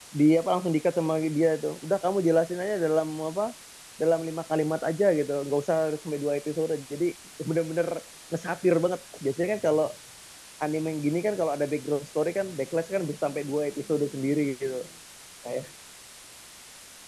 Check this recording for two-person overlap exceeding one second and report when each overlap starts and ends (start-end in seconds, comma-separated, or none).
none